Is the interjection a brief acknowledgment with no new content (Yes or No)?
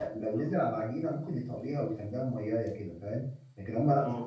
Yes